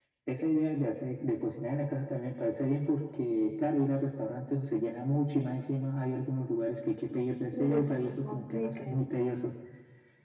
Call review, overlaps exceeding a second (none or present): present